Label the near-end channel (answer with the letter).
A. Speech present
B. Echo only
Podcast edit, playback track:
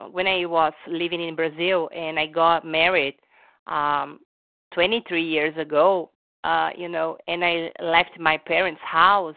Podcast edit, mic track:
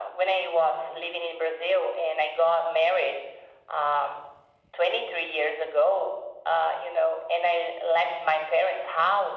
B